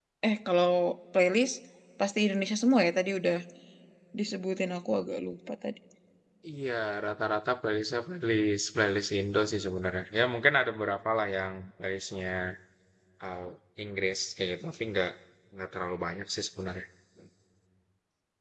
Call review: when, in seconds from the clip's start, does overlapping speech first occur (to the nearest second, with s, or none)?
none